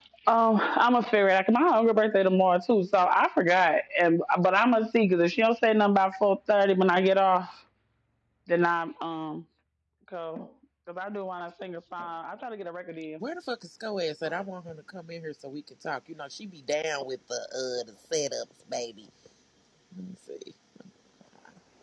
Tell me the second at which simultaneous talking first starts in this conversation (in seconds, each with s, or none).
none